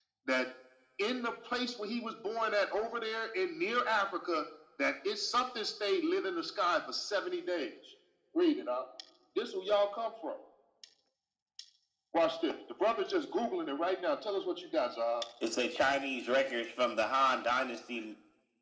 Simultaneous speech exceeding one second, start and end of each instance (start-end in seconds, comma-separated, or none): none